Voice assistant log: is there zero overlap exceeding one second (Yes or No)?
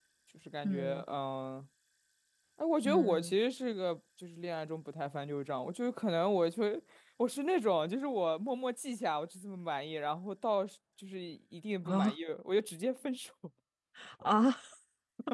Yes